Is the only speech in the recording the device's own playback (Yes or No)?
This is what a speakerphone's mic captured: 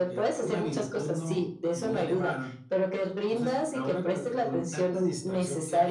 Yes